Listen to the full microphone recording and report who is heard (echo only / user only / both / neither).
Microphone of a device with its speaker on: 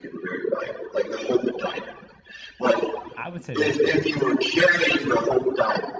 both